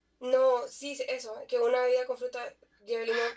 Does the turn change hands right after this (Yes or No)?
Yes